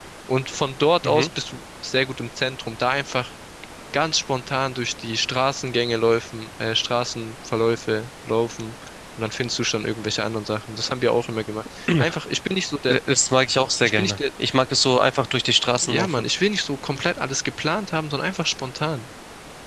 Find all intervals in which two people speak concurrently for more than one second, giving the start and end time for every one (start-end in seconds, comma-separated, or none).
none